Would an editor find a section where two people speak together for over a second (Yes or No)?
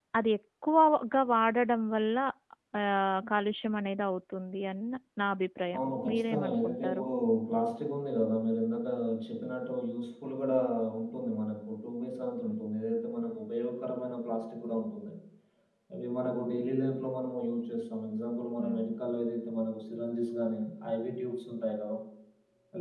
Yes